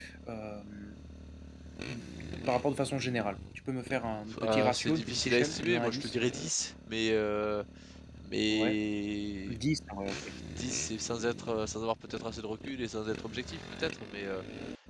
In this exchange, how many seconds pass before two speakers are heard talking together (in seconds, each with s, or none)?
4.3 s